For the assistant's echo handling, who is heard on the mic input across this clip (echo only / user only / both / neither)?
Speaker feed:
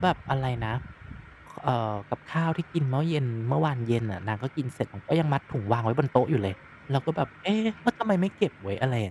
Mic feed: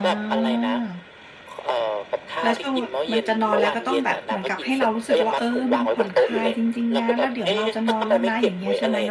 both